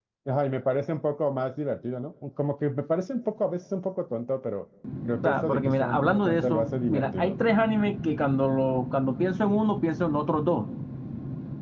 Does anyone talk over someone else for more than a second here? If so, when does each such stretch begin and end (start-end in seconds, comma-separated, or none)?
5.2-7.3